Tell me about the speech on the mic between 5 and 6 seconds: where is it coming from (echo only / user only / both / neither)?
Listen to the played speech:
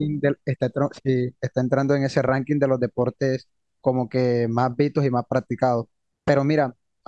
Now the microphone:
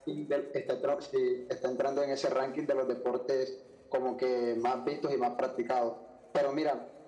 echo only